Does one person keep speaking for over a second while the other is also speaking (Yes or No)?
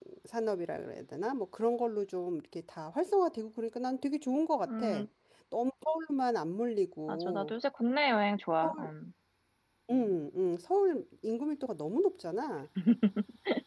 No